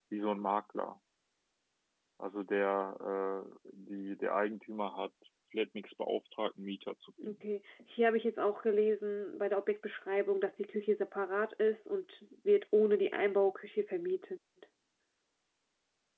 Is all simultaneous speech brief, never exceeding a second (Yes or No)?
Yes